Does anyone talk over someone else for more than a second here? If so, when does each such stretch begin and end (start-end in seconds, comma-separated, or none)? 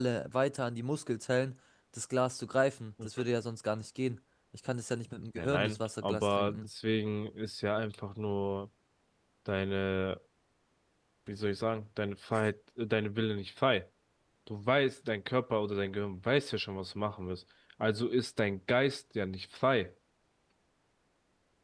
5.4-6.6